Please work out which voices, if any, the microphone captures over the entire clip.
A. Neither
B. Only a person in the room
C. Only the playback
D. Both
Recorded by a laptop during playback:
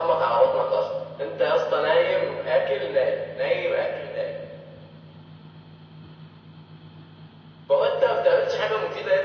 C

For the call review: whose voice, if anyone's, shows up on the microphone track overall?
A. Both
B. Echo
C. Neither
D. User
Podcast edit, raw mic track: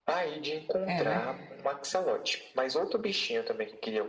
A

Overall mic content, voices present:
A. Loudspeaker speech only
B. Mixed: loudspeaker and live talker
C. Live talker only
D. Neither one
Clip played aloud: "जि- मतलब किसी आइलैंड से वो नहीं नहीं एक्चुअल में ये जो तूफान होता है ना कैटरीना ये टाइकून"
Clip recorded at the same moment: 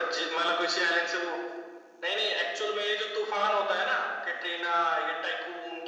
A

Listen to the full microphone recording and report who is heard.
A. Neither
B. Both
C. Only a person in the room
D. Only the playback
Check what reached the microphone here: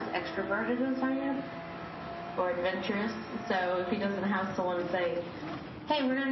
D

